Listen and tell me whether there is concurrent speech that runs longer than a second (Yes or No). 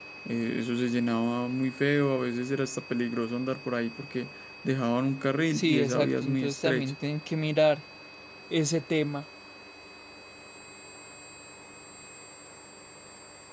Yes